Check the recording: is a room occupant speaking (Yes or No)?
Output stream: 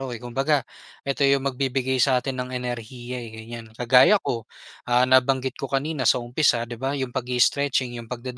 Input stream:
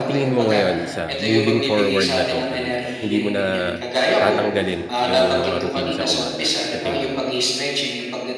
Yes